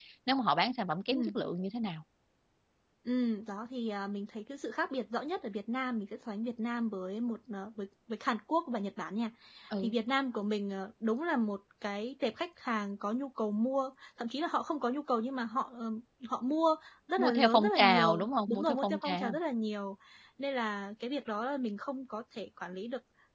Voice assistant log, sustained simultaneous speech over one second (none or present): present